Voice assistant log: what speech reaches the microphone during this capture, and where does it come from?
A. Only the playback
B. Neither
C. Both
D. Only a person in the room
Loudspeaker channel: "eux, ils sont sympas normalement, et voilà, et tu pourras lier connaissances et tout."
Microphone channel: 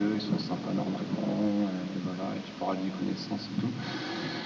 A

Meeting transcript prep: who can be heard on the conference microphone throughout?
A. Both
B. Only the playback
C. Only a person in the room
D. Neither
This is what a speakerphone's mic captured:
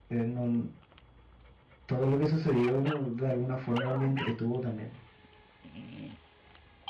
B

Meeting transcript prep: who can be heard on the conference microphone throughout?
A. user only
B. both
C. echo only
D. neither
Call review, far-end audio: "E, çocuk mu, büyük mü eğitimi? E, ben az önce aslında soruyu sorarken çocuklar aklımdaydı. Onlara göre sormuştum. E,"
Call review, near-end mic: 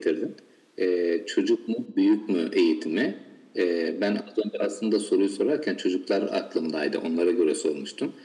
C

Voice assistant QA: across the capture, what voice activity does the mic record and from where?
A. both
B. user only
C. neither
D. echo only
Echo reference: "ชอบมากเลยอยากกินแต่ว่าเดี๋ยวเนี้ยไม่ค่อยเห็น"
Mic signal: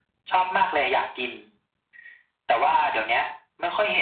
D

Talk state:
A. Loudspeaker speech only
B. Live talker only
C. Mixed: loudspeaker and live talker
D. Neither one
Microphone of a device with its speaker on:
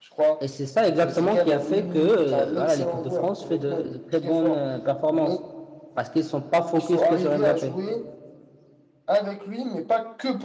C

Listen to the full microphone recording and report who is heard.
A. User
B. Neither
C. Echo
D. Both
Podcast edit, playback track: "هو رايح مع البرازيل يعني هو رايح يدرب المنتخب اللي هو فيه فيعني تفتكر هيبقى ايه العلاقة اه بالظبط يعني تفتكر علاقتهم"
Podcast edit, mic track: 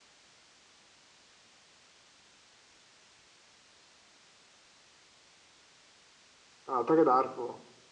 A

